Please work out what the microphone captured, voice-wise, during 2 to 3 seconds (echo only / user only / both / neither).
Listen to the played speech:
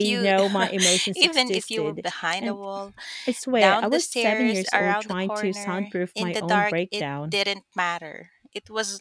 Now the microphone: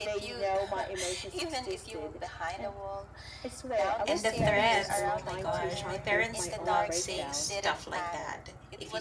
echo only